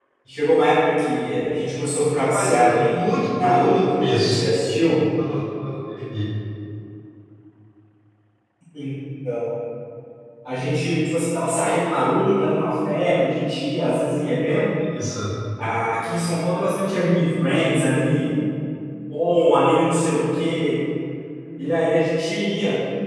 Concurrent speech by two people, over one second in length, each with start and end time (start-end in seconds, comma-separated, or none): 2.1-4.4